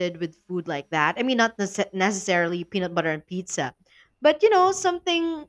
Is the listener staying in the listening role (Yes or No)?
Yes